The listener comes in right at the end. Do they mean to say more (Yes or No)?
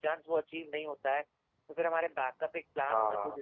No